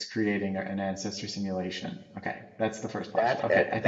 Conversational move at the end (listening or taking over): taking over